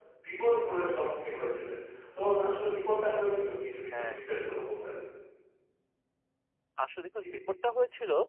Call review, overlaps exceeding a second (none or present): none